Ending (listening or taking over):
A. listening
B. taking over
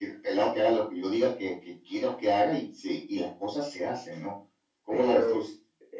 B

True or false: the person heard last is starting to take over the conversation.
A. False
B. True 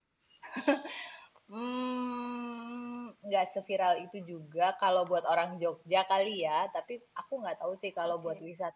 A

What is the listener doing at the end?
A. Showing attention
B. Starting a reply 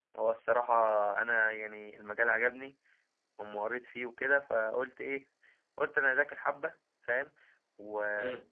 A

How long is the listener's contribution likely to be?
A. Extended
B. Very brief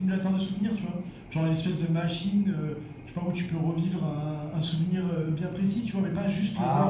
B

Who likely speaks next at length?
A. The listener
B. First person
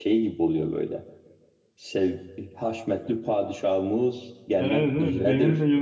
A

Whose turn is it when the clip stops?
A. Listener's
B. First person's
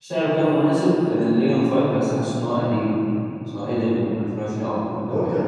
A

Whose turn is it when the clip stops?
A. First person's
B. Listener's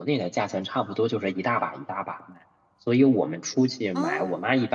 A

